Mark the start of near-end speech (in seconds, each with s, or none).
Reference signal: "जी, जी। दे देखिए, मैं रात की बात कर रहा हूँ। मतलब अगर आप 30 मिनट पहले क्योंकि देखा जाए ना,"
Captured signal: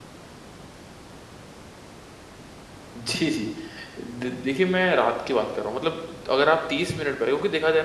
none